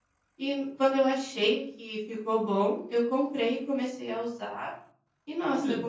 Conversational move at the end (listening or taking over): listening